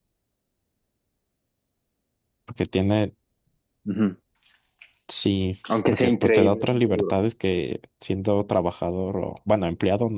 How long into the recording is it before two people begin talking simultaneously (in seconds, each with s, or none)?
5.9 s